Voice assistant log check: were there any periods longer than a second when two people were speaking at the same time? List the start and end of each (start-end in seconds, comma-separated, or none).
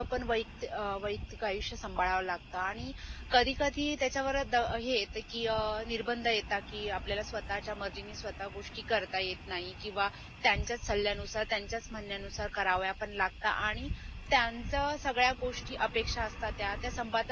none